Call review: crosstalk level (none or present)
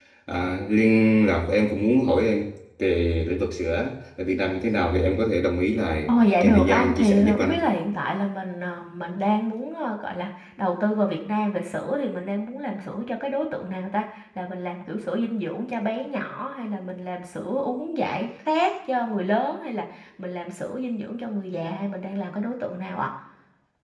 present